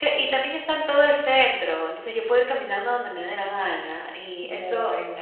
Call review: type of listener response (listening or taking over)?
listening